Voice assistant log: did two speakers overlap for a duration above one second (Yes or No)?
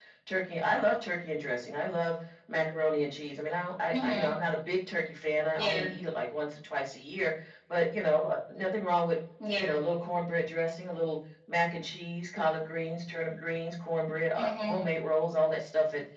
No